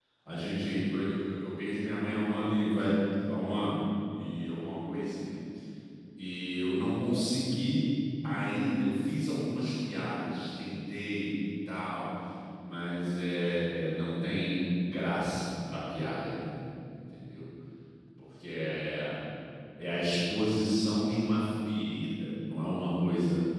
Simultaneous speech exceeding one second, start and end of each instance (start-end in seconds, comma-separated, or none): none